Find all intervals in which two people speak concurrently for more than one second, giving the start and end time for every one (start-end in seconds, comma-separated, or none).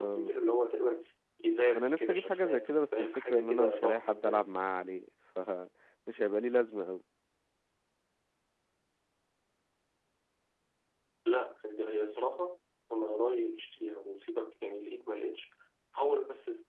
1.8-4.5